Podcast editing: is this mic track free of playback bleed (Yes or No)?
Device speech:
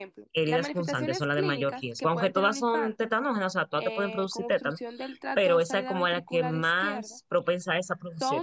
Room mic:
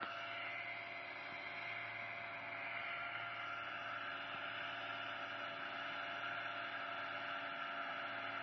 Yes